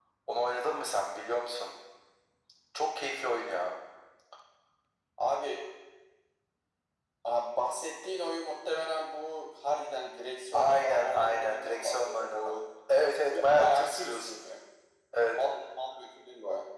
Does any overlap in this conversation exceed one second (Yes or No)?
Yes